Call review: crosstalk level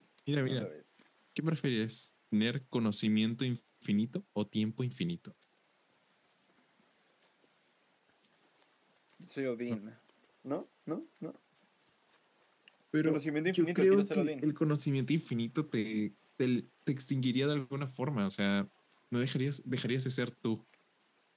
present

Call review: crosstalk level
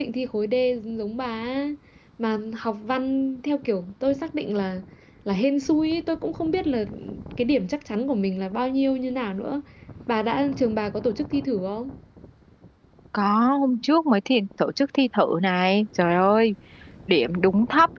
none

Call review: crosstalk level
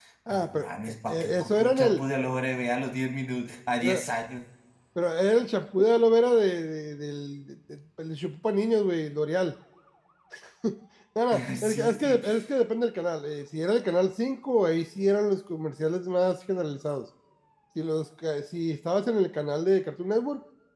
present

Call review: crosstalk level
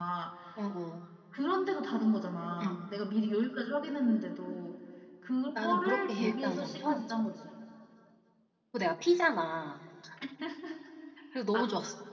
present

